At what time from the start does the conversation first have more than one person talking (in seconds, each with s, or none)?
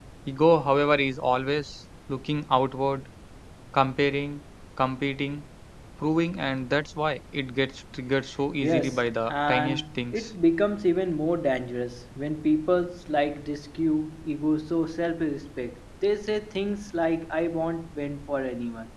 8.6 s